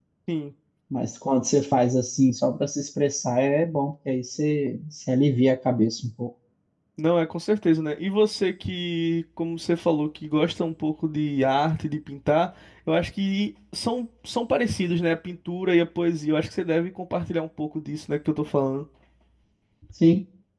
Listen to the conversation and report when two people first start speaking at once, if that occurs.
none

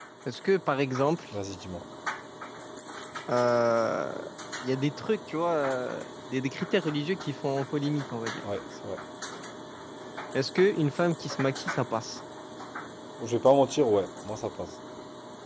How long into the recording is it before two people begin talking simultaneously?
none

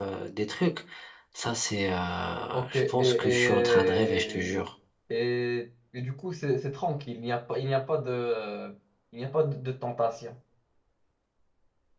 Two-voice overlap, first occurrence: 3 s

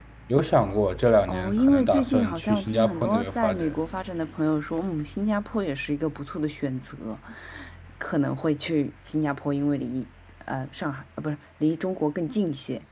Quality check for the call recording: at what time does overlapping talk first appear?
1 s

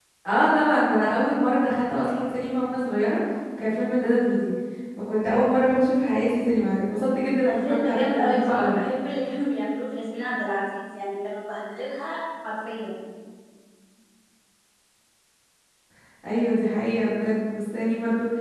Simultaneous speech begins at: 7 s

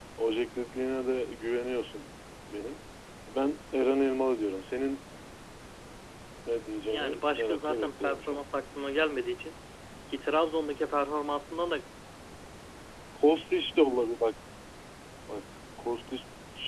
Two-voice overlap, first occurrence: 7 s

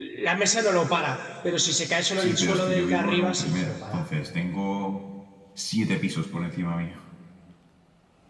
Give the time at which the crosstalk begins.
2 s

